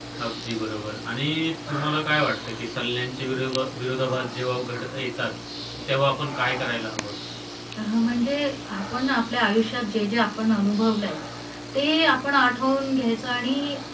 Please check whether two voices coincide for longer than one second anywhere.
No

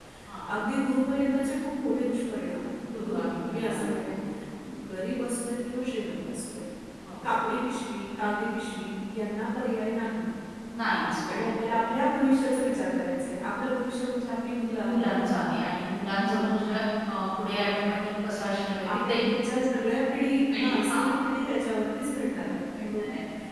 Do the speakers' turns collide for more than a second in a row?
Yes, from 2.9 s

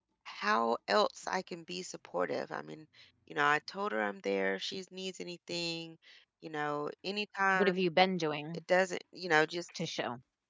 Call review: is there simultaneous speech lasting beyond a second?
No

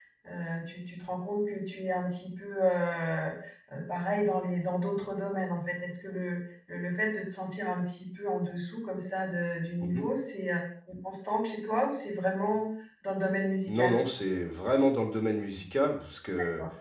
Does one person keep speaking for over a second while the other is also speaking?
No

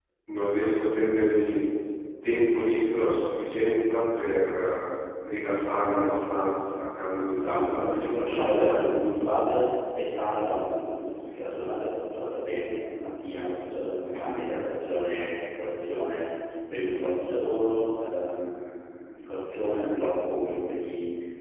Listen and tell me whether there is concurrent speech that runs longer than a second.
Yes, from 7.4 s

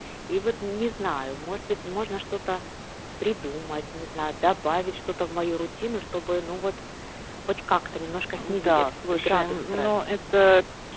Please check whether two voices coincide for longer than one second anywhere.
Yes, from 8.3 s

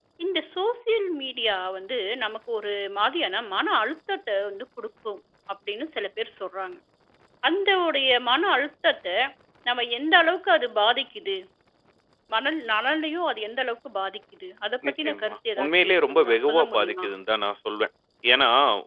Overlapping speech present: Yes, from 14.8 s

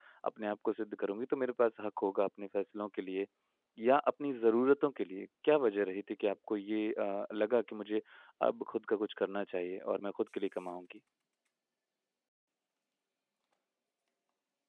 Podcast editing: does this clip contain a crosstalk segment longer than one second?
No

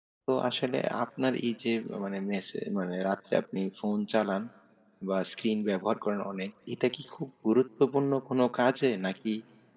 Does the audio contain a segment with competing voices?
No

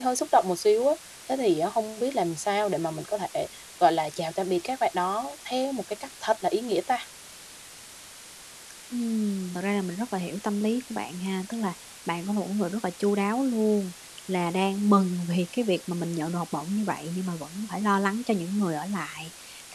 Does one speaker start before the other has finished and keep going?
No

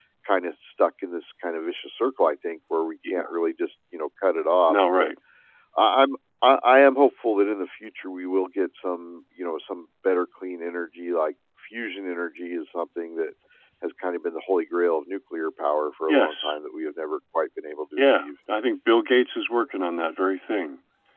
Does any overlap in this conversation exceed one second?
No

